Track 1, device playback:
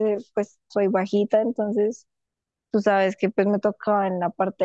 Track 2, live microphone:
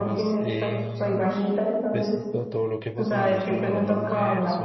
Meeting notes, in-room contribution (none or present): present